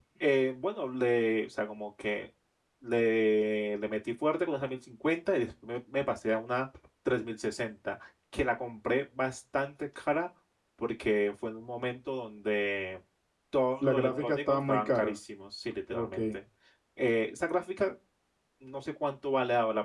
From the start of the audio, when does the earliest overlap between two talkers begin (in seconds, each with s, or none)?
13.8 s